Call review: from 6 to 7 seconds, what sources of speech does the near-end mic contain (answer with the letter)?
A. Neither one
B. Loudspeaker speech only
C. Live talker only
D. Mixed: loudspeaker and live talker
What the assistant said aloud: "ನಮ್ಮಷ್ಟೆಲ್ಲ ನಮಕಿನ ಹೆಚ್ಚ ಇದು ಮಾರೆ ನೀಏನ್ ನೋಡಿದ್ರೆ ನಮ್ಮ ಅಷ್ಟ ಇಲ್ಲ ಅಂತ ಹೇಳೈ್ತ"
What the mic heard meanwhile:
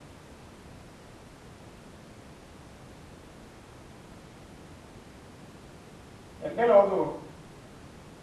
C